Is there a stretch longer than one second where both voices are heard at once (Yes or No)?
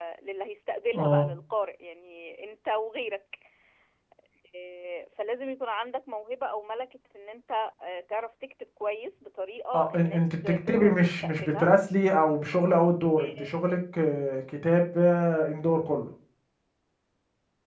Yes